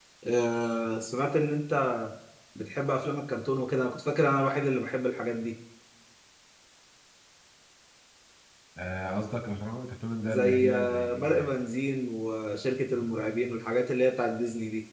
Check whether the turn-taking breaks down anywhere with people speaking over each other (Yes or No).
Yes